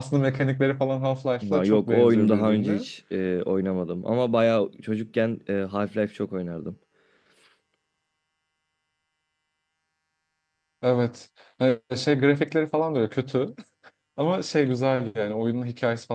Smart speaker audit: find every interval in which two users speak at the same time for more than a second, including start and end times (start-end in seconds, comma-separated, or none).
1.5-2.8